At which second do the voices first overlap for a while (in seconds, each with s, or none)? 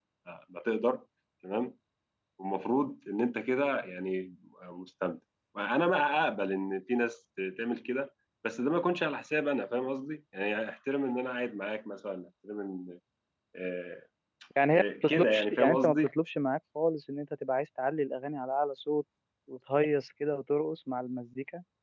14.8 s